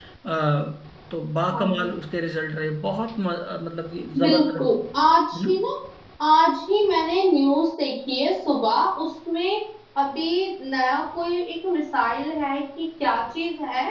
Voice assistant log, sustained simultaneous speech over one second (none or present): none